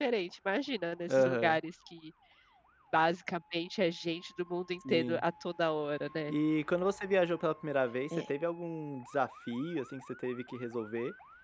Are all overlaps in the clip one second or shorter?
Yes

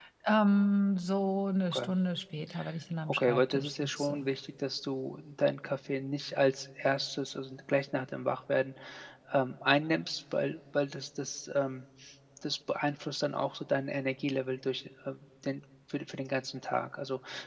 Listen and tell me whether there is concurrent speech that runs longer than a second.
Yes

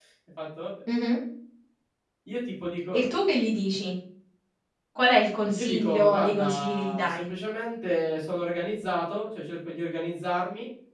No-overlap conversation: No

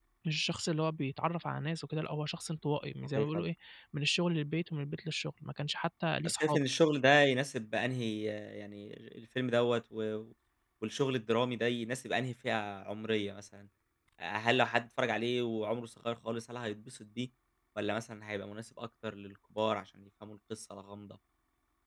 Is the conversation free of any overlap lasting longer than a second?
Yes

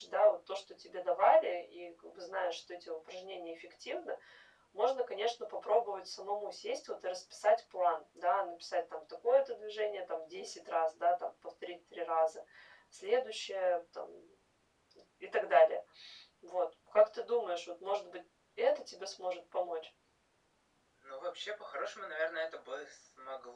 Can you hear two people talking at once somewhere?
No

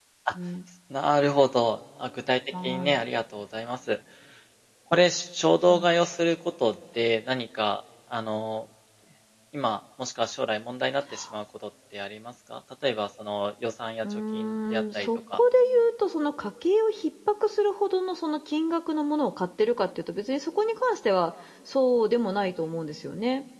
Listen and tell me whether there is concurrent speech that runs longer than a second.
Yes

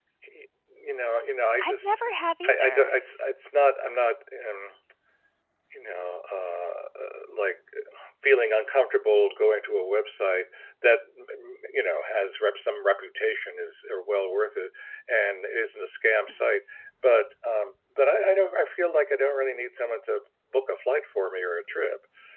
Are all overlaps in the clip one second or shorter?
Yes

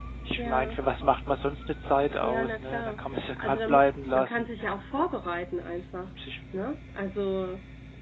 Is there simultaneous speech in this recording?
Yes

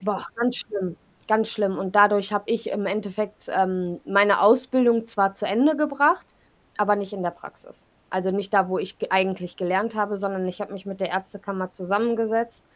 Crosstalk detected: No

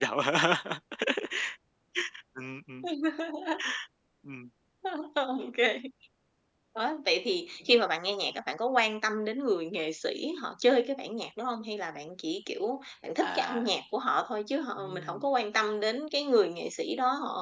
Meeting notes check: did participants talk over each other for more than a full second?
No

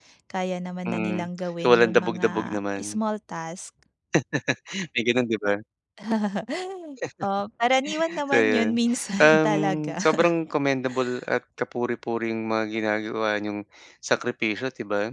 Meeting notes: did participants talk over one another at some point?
Yes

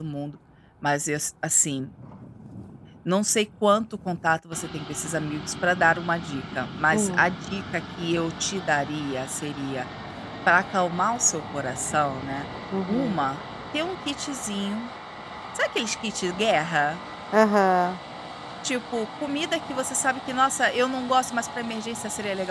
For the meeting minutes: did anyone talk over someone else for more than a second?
No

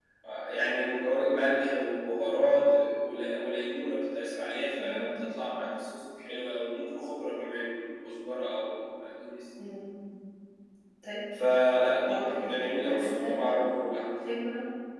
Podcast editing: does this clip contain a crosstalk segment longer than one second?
Yes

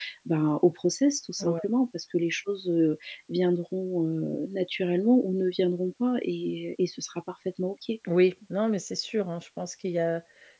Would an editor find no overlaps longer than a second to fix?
Yes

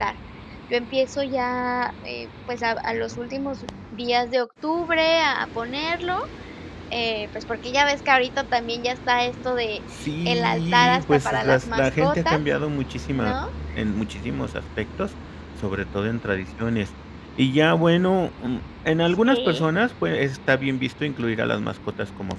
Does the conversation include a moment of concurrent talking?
Yes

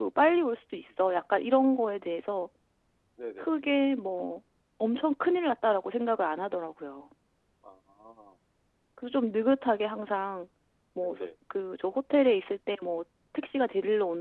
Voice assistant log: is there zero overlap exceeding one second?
Yes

